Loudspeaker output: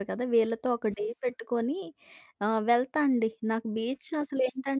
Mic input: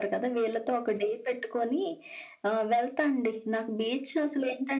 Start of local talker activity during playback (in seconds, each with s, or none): none